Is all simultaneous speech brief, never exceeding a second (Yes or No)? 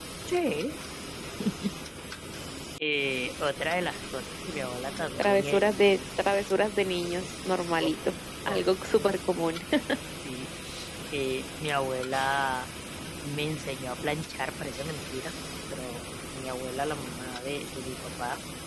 Yes